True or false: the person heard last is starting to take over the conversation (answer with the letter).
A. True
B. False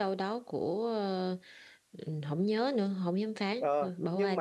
A